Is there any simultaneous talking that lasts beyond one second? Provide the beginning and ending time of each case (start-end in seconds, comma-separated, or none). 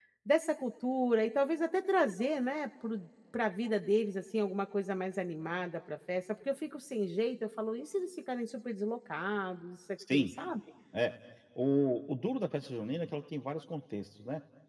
none